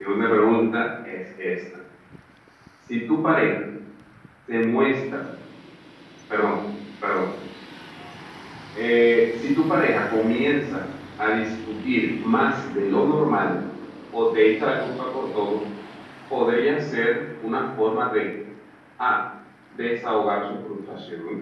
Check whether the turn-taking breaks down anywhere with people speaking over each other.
No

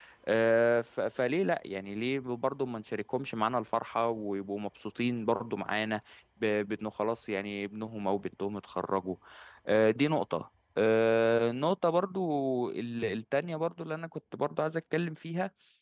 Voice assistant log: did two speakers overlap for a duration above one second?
No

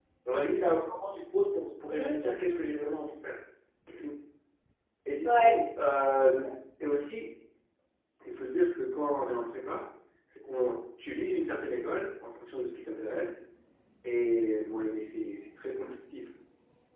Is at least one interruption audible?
Yes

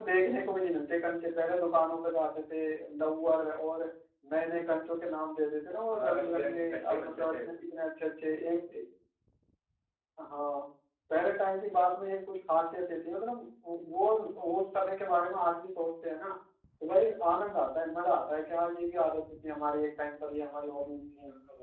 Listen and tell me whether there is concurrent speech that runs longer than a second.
Yes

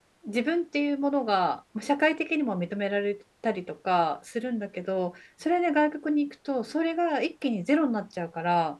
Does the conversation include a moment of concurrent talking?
No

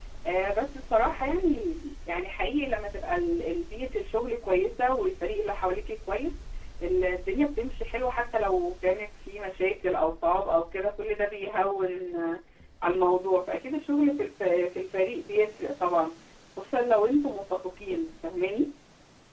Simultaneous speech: No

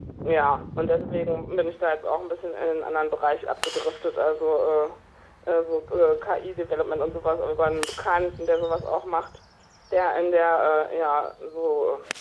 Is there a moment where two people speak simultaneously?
No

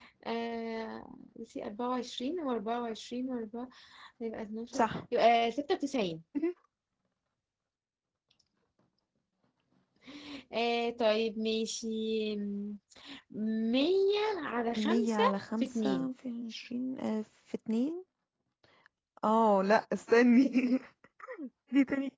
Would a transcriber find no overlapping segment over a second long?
No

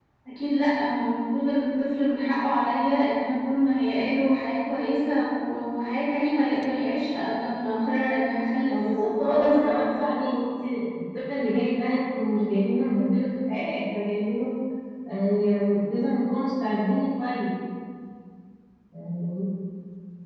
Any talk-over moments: Yes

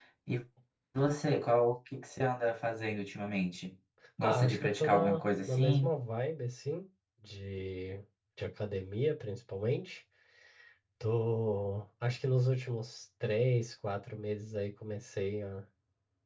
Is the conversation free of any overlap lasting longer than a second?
No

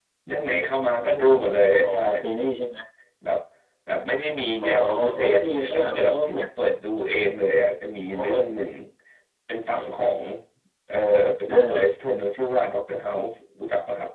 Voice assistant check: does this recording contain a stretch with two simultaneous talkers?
Yes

